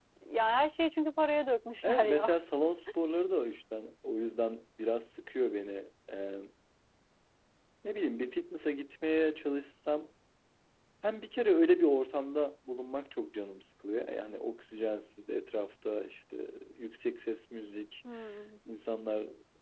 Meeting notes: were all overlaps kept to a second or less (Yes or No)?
Yes